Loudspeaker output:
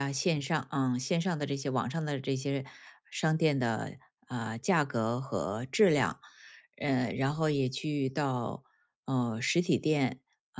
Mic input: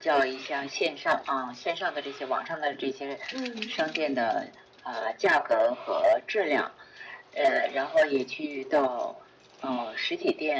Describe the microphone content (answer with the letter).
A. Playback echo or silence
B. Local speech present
B